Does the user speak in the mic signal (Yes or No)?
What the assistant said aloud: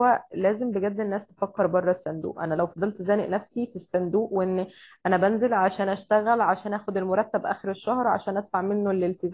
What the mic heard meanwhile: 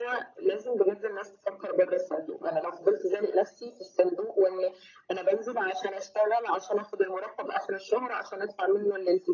No